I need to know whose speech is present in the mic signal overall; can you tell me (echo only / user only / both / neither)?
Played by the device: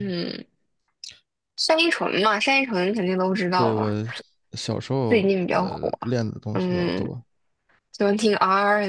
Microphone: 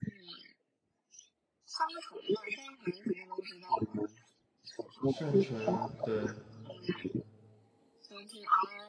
both